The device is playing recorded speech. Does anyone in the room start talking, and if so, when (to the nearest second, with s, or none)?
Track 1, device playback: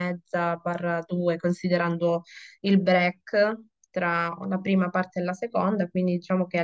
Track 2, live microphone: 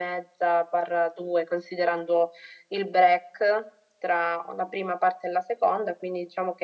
none